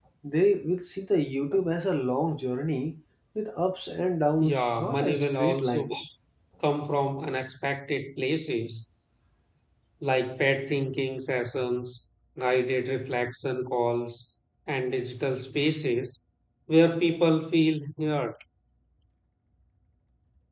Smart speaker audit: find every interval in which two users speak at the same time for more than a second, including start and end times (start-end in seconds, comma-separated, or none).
4.4-5.9